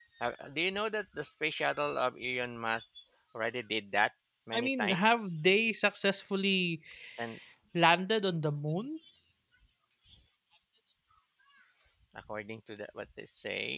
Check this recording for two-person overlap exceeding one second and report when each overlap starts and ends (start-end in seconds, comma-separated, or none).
none